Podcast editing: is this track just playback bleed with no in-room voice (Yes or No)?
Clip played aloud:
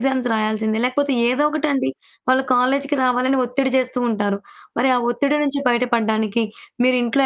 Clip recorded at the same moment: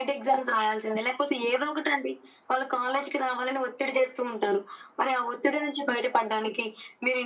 Yes